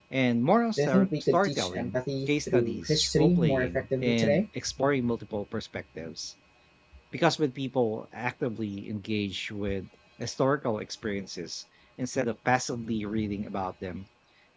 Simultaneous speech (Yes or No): Yes